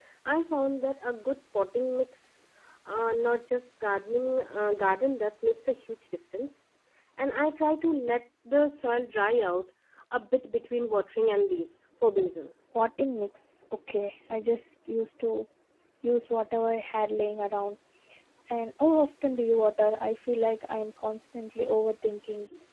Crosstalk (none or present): none